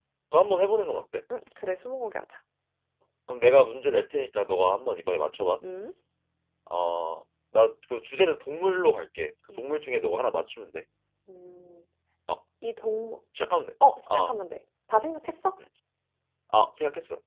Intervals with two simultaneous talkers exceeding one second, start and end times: none

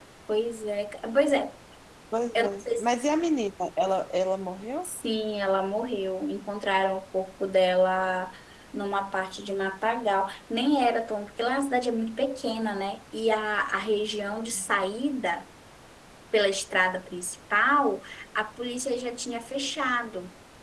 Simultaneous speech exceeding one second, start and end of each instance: none

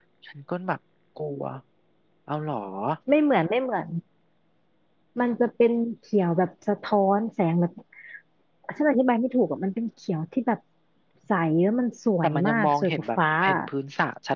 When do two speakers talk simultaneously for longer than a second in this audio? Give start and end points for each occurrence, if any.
12.2-13.6

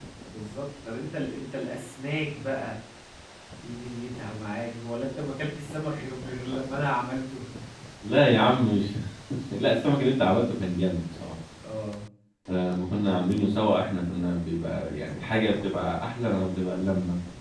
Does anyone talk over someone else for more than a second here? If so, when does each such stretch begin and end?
none

